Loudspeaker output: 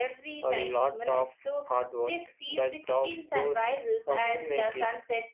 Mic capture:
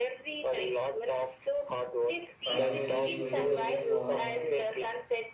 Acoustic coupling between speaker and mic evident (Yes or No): Yes